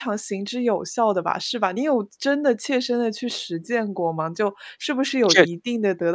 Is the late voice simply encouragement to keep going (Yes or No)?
Yes